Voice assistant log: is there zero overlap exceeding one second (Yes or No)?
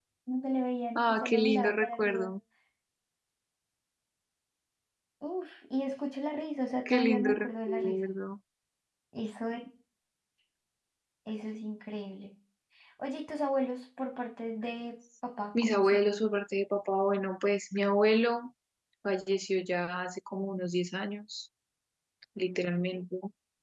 No